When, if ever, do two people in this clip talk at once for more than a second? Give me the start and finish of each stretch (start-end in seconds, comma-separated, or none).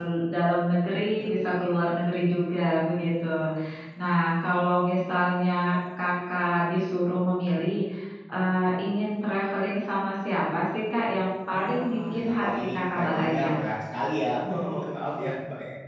11.5-13.6